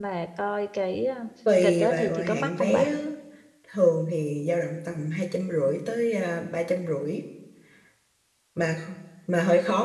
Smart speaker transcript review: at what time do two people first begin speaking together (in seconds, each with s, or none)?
1.6 s